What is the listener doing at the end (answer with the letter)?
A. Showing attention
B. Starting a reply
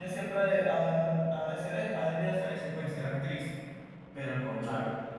A